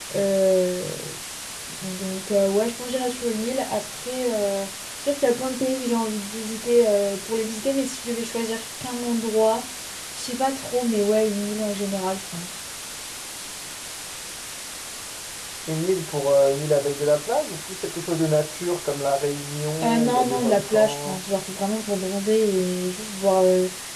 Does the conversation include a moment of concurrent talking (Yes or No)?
Yes